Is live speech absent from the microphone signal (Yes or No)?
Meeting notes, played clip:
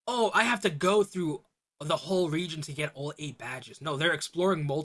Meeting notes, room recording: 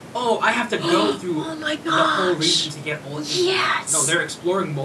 No